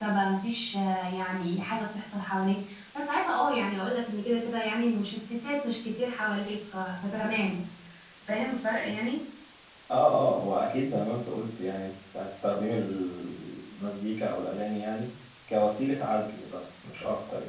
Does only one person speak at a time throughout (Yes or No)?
Yes